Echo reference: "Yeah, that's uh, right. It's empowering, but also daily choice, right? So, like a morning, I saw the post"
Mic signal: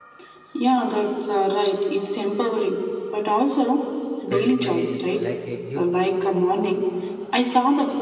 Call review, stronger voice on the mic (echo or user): echo